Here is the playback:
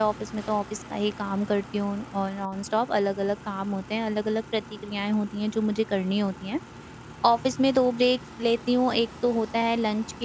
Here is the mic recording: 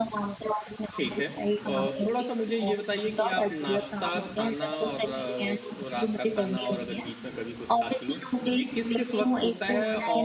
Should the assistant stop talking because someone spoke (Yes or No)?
Yes